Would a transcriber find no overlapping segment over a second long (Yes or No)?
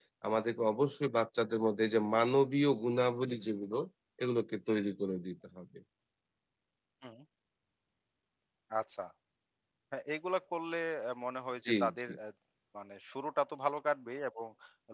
Yes